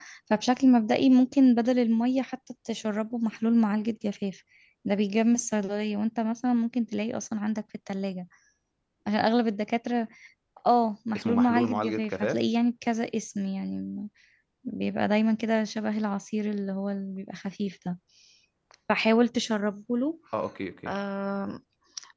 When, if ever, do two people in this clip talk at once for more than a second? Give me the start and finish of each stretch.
11.2-12.4

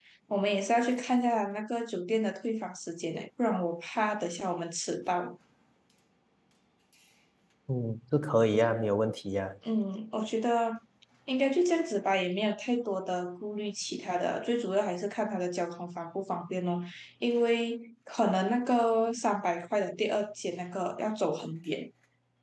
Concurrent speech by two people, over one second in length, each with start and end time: none

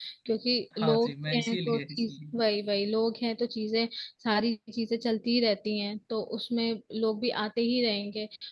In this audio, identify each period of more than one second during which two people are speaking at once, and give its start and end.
0.8-2.4

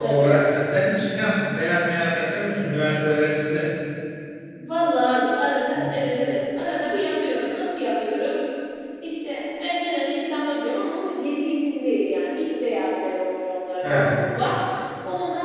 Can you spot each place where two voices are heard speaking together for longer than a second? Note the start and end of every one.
none

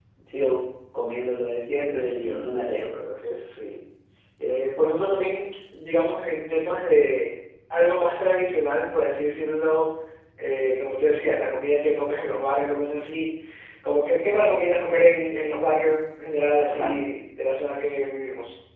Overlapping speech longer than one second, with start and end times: 1.7-2.9

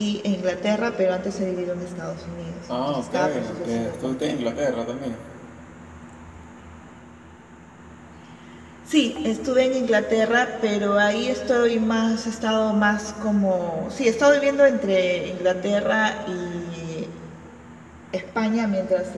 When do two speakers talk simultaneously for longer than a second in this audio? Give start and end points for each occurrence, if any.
2.8-4.4

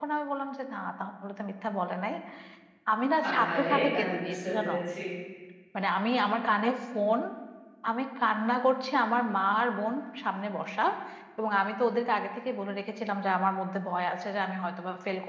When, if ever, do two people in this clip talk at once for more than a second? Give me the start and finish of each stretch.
3.3-4.7

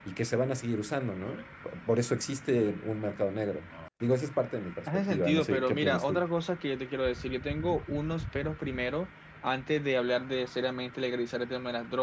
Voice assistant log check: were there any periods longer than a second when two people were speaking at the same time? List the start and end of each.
4.9-6.2

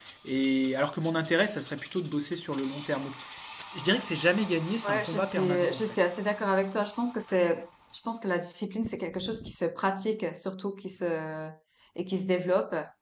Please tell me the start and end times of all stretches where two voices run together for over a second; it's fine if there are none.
4.8-6.0

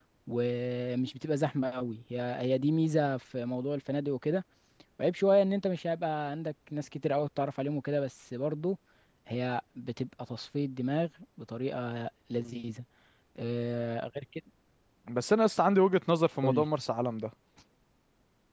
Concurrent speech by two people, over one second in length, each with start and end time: none

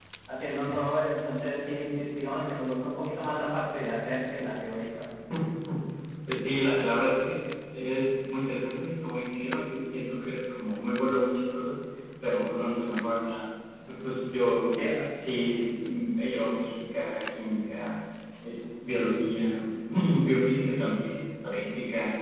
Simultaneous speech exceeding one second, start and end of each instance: none

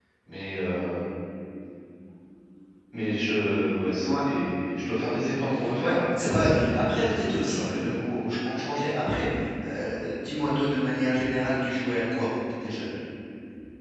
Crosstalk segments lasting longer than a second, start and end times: 5.8-7.8

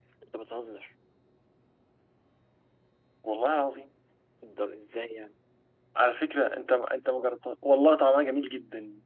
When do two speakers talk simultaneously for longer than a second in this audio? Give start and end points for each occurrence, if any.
none

